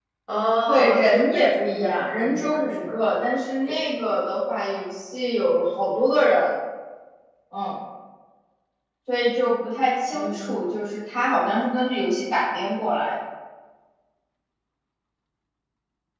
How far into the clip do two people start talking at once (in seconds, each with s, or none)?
0.7 s